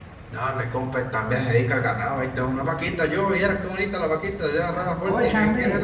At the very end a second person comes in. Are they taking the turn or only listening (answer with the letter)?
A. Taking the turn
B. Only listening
A